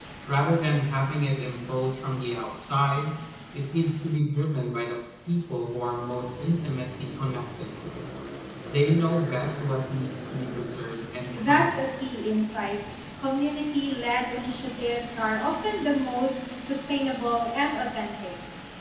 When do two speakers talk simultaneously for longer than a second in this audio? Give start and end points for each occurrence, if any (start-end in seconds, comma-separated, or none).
none